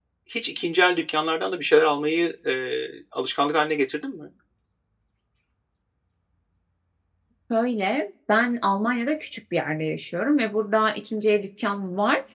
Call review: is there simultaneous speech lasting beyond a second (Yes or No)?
No